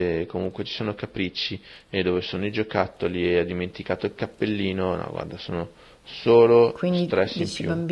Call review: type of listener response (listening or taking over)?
taking over